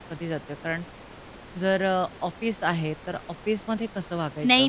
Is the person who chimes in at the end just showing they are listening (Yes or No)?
No